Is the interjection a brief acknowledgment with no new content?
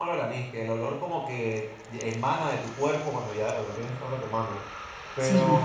Yes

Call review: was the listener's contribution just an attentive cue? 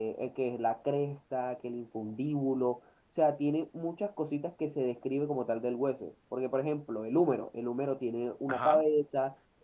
Yes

